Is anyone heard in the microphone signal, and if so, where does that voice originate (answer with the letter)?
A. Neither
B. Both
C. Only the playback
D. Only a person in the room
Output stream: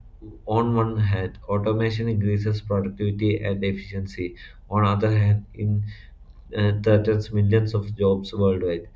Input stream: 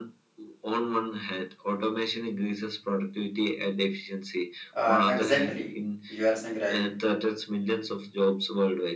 B